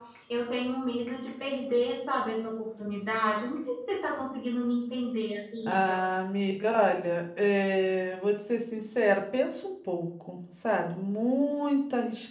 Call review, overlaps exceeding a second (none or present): none